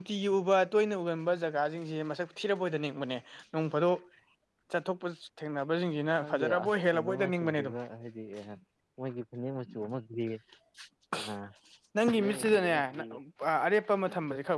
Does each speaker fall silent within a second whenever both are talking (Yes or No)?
No